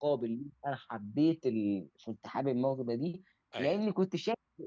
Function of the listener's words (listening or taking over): listening